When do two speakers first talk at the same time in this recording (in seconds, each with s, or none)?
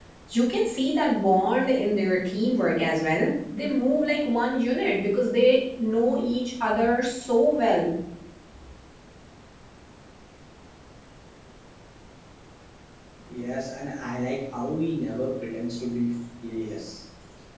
none